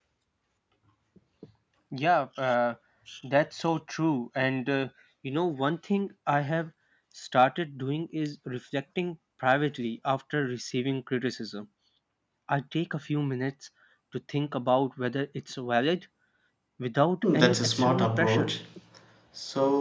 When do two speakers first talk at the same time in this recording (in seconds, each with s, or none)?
17.2 s